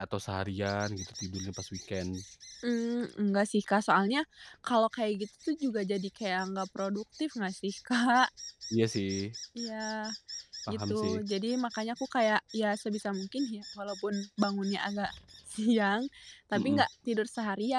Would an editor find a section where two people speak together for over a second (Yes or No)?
No